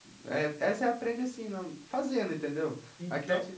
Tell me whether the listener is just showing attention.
Yes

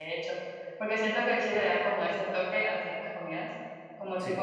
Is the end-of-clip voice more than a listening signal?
No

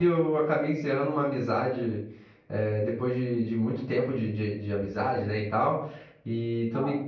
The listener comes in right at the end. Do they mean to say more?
No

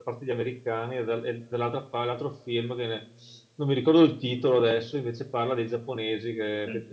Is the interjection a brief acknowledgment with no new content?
Yes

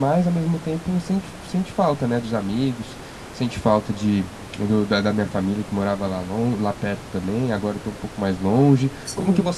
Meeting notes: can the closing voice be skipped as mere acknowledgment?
Yes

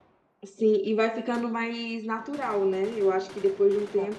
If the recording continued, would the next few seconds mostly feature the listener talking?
No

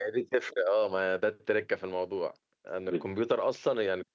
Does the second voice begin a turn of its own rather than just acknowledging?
No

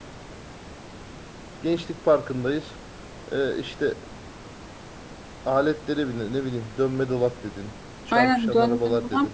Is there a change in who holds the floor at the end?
Yes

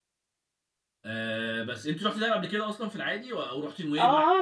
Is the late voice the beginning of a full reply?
Yes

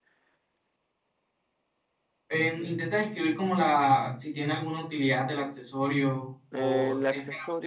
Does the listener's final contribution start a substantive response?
Yes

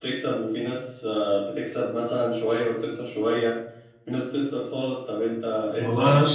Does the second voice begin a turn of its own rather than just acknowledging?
Yes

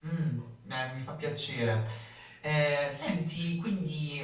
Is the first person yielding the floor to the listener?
No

